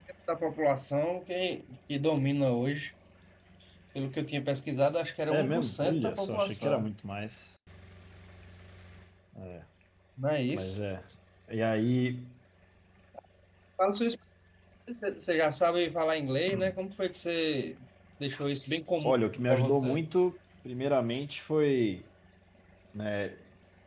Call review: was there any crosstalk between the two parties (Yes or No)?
Yes